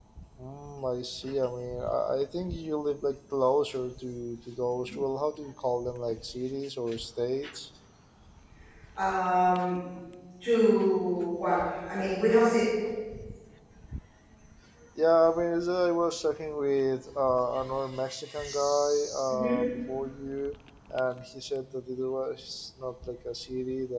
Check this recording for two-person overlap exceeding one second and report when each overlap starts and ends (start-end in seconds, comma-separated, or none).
none